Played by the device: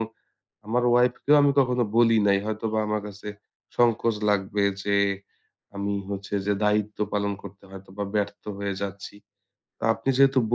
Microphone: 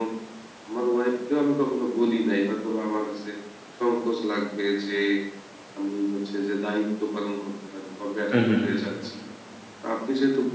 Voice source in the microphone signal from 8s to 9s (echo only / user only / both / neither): both